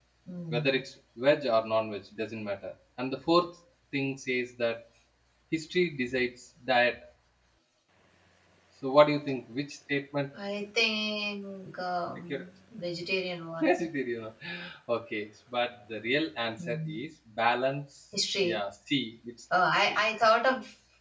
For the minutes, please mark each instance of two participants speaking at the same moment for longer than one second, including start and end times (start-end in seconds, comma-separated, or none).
none